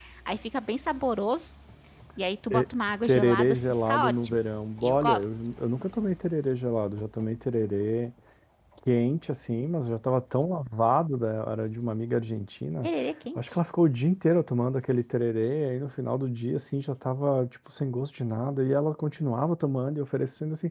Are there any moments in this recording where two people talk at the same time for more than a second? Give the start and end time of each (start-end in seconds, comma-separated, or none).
3.0-4.4